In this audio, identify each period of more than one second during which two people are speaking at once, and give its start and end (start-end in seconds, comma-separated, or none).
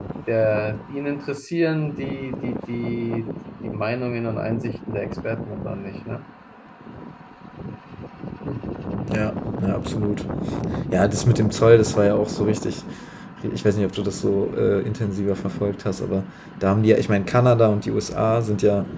none